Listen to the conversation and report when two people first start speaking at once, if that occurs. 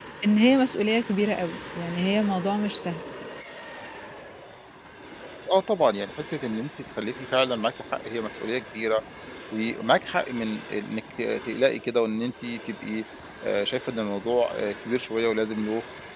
none

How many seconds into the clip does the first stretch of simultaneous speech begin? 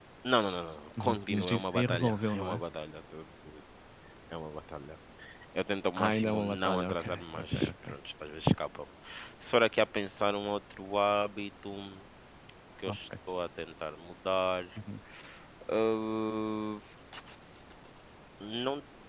1 s

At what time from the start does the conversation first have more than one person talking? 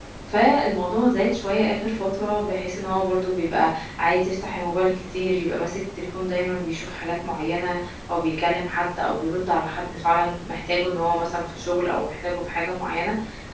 none

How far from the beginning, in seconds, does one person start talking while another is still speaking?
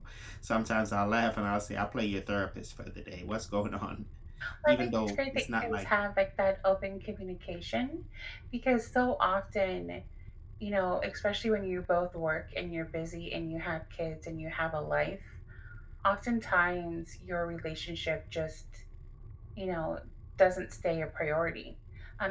5 s

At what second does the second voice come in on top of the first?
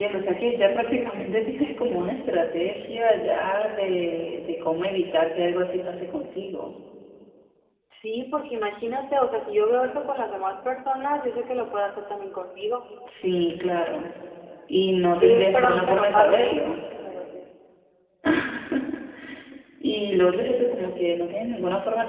15 s

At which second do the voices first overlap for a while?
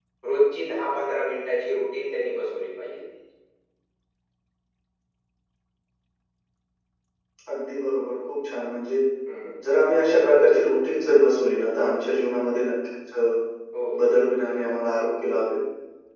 none

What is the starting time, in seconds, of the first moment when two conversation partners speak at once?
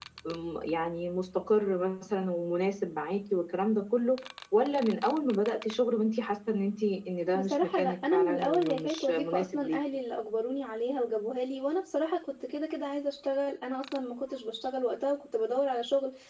7 s

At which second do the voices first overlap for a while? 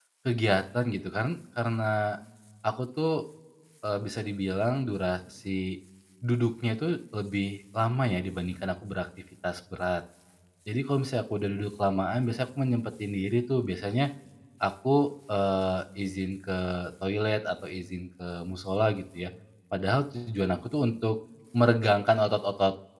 none

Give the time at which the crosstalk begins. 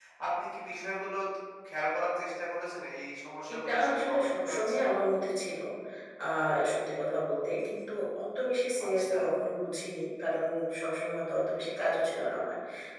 4 s

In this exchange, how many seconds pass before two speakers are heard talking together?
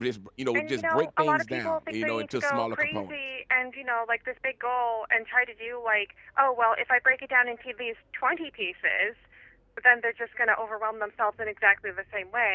1 s

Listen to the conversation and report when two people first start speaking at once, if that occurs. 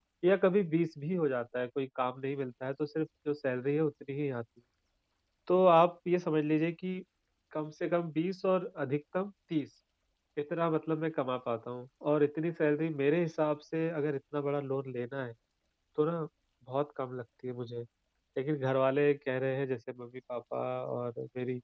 none

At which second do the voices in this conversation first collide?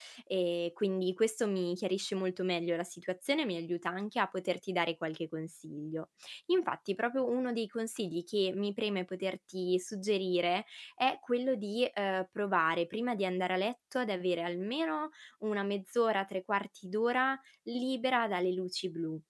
none

